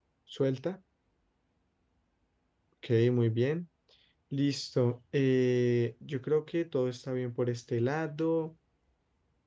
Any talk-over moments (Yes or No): No